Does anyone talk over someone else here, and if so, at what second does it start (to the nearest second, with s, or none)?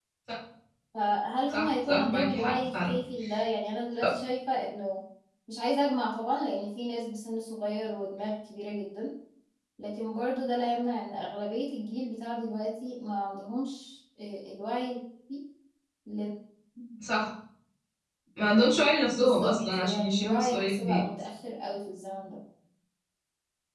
1 s